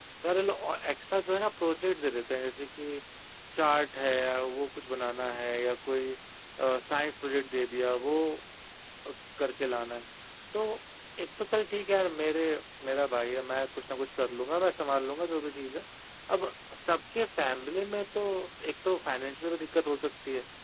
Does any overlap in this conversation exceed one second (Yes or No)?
No